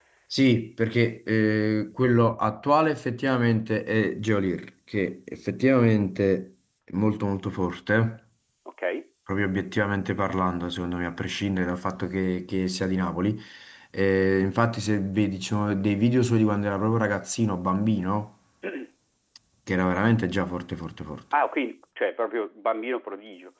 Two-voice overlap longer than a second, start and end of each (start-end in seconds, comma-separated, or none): none